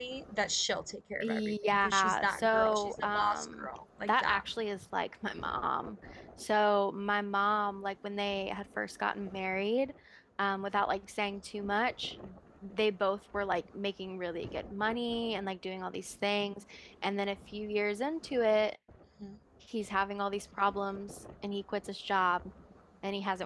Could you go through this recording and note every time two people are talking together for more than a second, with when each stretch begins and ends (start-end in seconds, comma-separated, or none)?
1.2-3.7